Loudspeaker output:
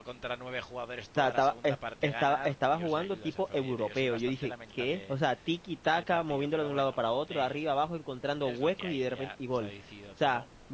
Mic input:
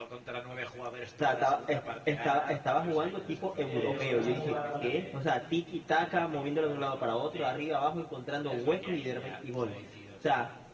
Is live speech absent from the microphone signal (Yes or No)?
No